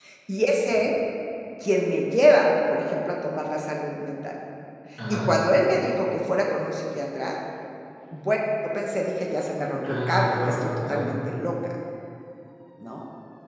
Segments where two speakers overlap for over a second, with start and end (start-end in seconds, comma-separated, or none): 9.8-11.1